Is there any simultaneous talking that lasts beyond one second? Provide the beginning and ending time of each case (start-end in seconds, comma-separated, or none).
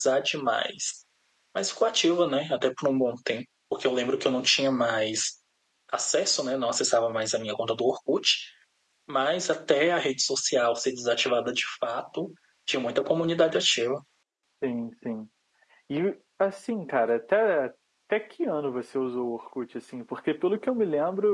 none